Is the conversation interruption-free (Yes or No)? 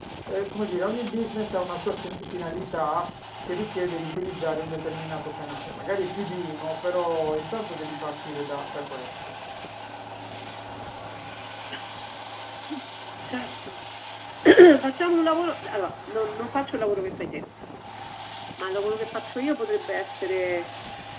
Yes